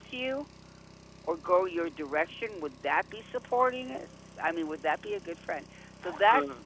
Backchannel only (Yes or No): Yes